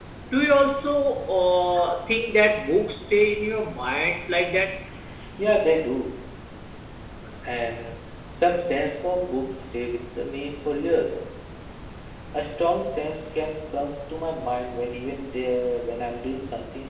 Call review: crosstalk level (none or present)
none